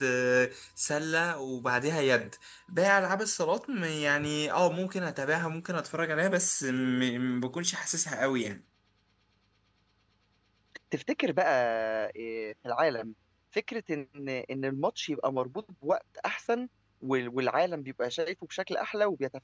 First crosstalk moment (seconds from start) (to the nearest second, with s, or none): none